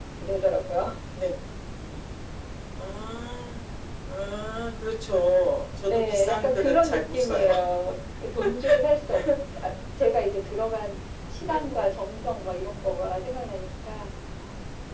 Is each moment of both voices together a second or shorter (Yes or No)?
No